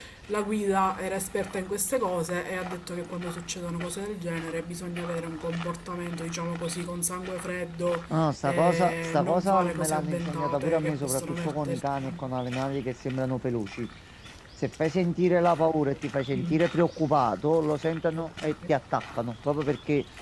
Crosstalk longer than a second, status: present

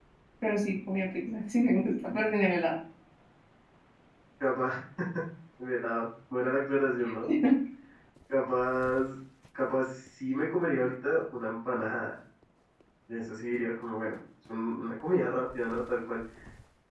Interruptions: none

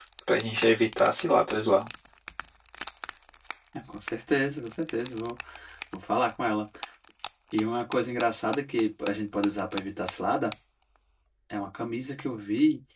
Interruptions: none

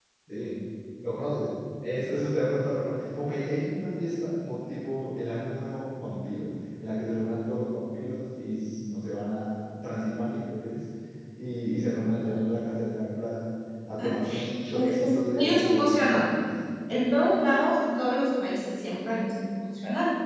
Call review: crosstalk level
present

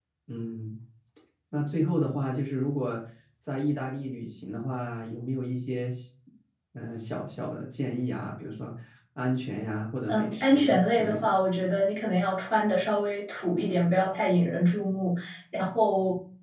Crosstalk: present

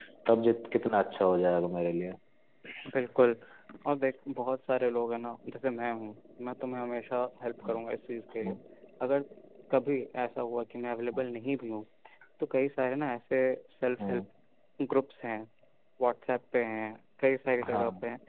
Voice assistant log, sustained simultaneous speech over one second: none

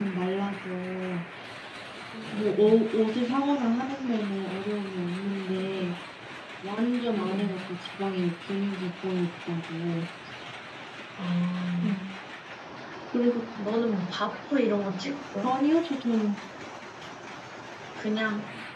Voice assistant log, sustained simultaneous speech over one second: none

